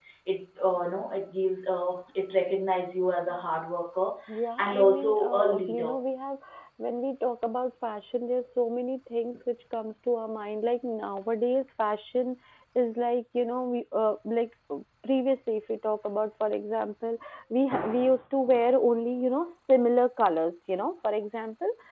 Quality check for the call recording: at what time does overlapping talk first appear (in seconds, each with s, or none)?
4.6 s